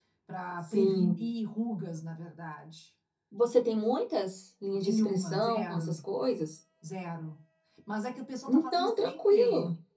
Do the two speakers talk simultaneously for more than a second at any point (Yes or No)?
Yes